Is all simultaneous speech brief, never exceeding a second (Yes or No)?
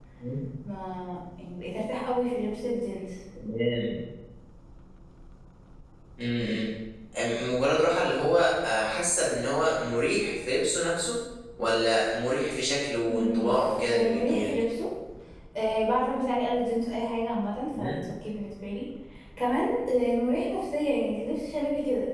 No